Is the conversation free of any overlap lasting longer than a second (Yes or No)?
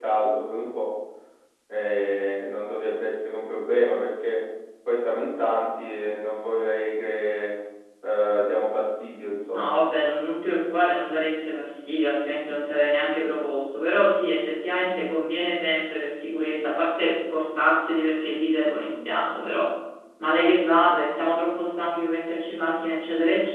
Yes